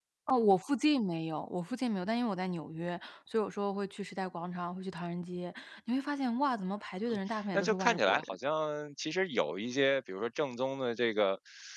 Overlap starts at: 7.1 s

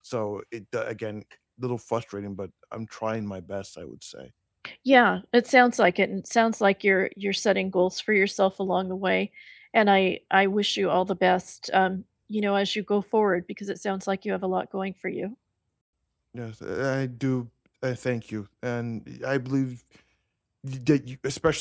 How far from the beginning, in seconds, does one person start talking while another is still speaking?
none

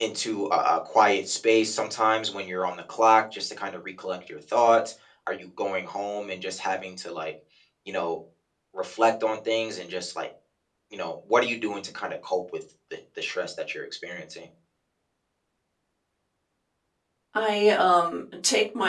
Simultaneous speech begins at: none

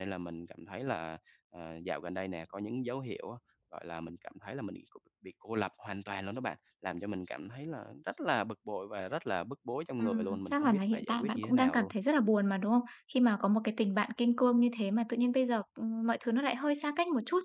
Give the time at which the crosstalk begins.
9.9 s

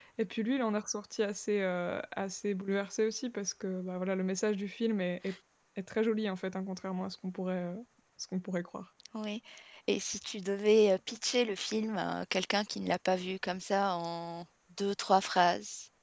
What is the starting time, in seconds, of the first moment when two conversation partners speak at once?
none

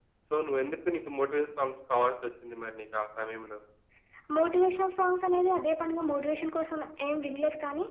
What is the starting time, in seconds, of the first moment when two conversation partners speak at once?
none

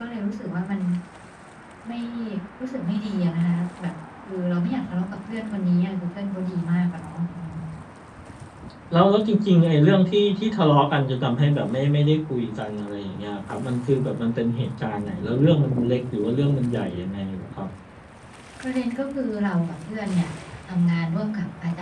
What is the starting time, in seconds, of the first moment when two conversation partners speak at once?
none

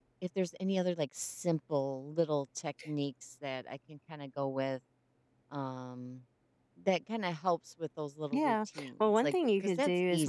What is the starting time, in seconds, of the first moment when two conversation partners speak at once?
8.3 s

